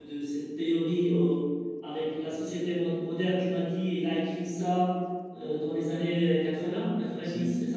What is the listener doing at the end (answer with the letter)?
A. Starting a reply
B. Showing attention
A